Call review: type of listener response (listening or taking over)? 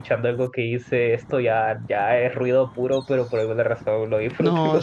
taking over